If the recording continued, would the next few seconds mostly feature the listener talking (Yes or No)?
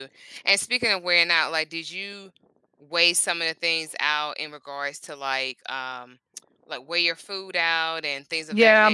Yes